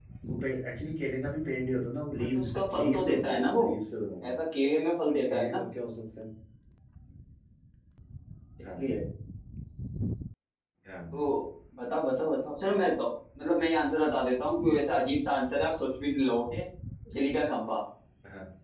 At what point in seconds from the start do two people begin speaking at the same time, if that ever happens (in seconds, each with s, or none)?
2.2 s